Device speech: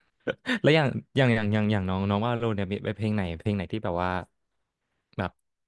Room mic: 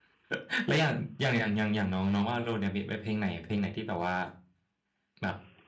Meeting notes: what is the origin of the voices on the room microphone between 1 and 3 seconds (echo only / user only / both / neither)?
echo only